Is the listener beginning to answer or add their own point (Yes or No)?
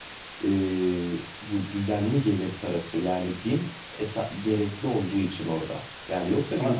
No